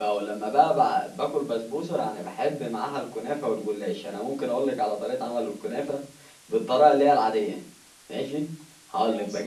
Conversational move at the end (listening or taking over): listening